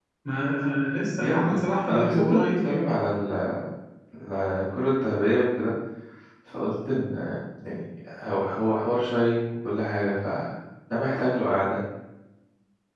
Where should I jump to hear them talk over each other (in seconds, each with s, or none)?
1.2 s